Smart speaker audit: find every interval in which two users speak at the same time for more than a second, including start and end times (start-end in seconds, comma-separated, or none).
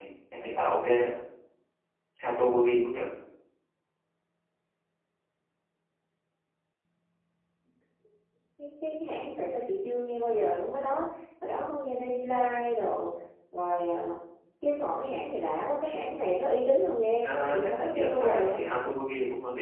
17.2-18.5